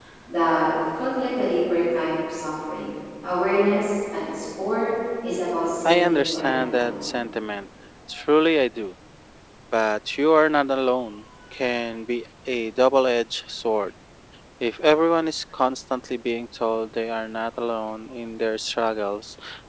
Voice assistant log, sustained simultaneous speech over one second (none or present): present